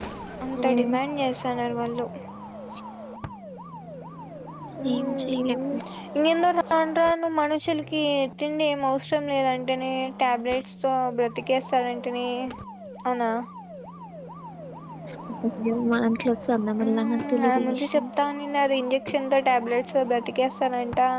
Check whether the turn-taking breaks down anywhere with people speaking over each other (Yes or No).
Yes